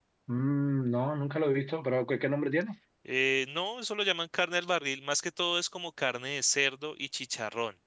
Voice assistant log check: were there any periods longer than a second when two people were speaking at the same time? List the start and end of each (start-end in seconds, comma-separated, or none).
none